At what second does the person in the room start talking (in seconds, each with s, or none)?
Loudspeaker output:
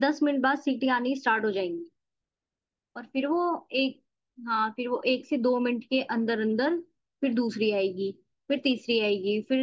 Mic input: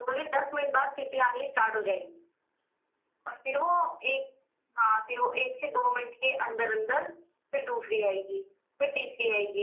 none